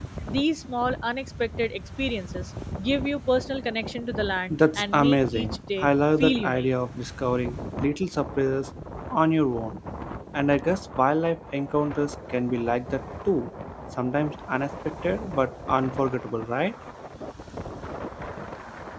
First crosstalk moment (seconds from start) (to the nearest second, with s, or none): 4 s